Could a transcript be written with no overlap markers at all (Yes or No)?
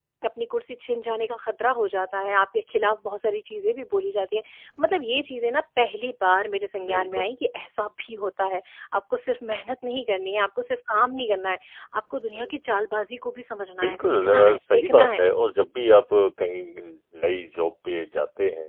No